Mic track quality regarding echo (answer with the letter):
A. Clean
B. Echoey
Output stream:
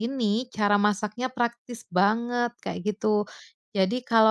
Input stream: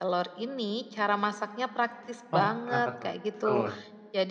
B